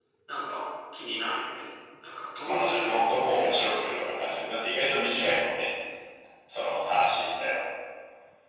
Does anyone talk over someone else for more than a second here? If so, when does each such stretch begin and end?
2.5-4.4

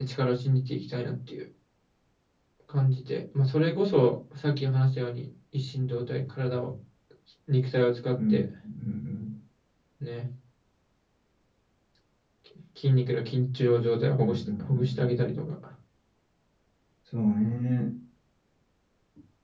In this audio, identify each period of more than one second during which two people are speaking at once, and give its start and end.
14.2-15.4

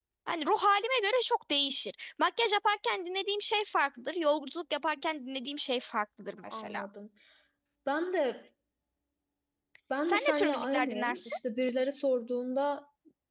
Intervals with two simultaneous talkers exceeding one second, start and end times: 10.0-11.3

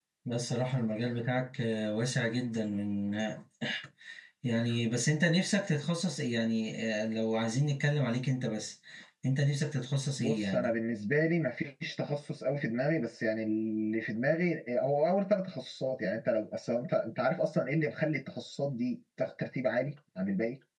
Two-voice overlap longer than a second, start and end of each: none

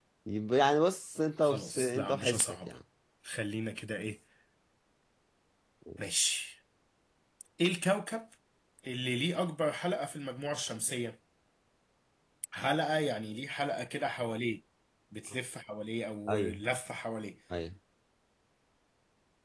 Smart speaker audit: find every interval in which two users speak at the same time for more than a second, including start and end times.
1.4-2.7

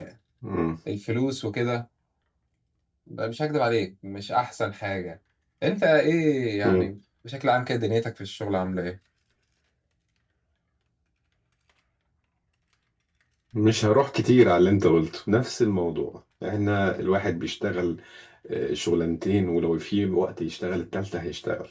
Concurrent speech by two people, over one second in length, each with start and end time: none

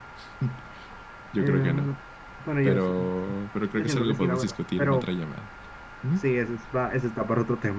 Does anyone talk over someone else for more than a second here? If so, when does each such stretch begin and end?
3.8-5.1

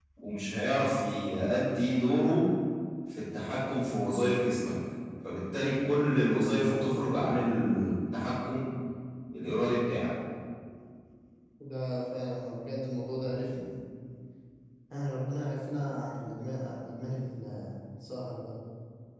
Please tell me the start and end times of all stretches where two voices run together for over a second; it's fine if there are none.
none

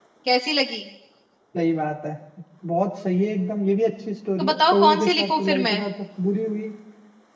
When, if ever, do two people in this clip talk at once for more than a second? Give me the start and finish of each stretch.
4.4-5.8

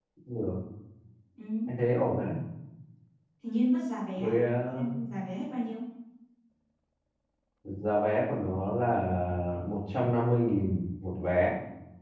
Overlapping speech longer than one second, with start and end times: none

